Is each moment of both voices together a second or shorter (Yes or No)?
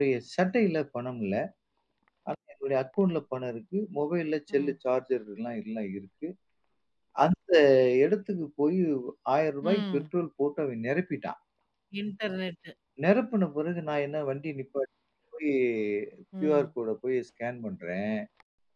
Yes